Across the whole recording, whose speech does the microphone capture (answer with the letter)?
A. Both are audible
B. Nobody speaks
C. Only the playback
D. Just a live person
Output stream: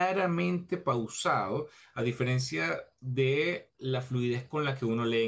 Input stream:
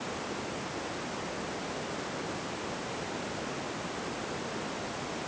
B